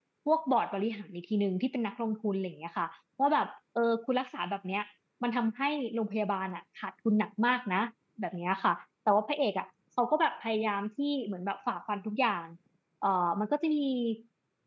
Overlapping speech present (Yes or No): No